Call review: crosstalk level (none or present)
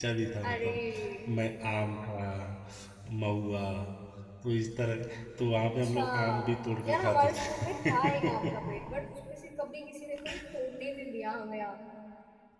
present